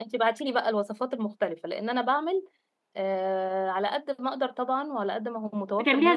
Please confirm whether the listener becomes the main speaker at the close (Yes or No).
Yes